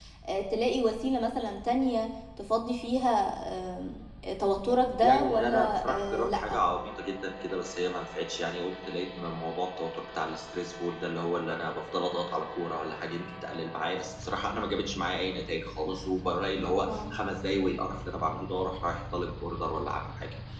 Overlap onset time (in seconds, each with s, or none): 5.0 s